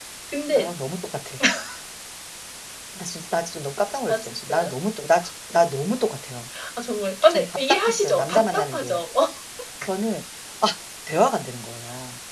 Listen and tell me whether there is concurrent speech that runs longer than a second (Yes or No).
Yes